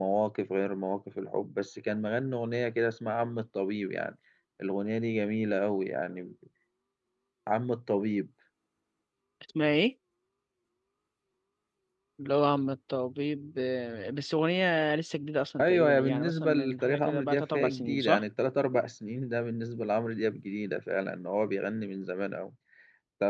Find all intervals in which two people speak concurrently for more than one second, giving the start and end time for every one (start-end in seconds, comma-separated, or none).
15.6-18.2